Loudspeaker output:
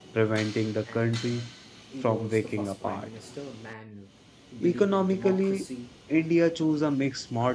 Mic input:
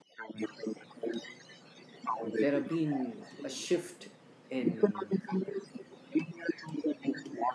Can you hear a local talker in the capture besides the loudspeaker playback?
Yes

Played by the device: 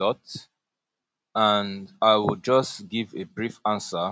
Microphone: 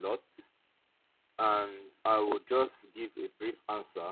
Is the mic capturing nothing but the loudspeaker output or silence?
Yes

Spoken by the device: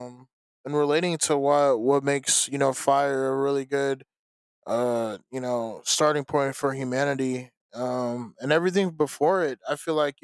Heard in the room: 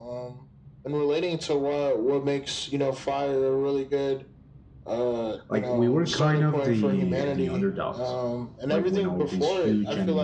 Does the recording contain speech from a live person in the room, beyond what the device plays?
Yes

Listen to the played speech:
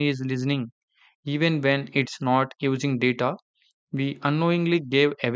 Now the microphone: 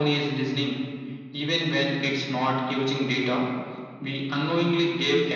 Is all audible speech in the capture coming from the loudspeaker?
Yes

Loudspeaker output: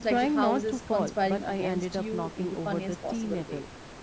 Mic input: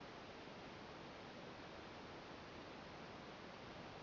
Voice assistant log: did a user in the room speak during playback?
No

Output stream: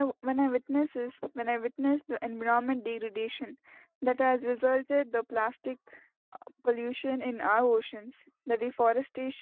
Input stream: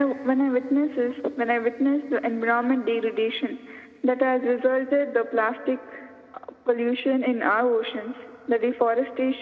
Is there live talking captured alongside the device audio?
No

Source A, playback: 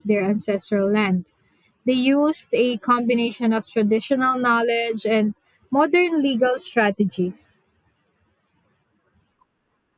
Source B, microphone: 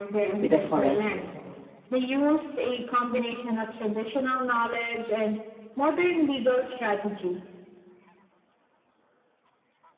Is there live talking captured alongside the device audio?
Yes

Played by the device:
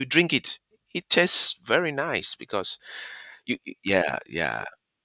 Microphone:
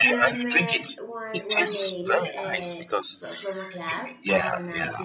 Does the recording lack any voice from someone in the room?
No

